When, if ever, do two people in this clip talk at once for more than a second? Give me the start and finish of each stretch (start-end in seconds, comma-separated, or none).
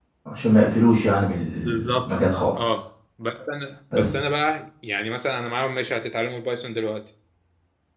none